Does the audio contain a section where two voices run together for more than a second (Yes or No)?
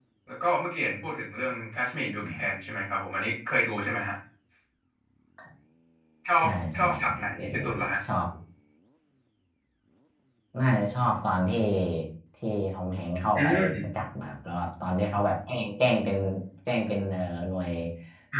Yes